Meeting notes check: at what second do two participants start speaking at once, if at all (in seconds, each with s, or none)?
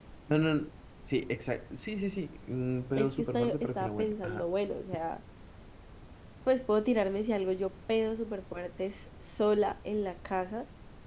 3.0 s